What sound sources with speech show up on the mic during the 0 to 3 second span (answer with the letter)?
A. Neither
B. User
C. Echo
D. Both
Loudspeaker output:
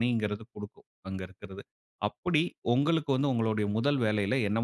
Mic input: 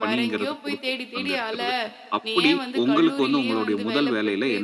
D